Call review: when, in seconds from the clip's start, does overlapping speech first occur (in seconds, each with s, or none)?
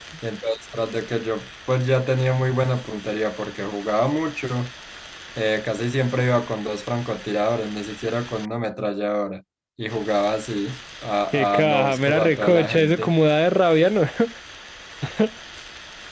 11.3 s